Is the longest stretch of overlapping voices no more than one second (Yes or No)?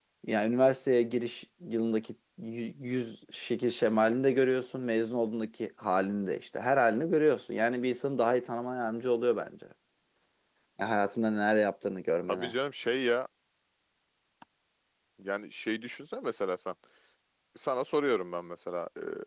Yes